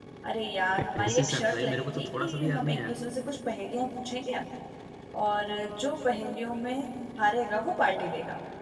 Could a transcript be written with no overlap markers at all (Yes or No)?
No